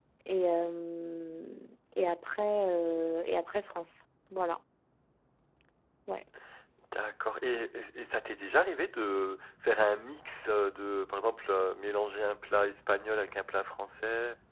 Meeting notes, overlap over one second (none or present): none